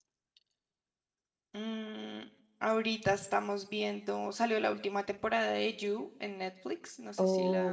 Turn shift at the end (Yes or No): Yes